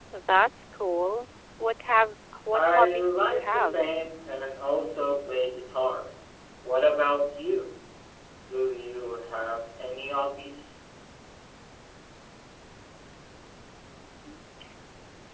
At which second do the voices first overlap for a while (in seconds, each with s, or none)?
2.5 s